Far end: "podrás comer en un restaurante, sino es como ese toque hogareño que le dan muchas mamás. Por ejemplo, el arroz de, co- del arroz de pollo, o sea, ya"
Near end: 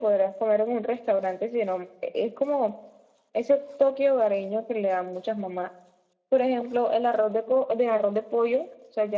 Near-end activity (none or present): none